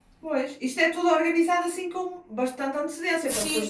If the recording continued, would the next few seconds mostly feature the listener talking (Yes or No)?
Yes